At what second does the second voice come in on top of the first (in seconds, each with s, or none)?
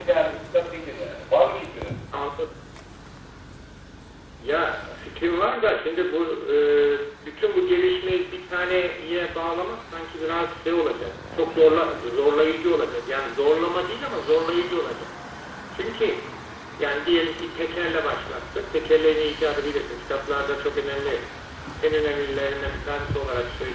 none